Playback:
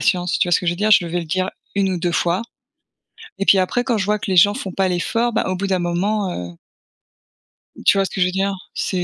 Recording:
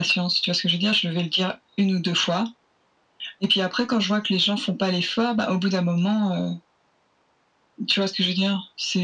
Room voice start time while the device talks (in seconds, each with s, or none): none